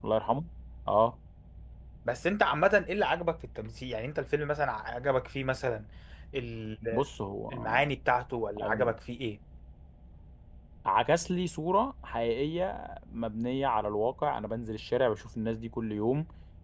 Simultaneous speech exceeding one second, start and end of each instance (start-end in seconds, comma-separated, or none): none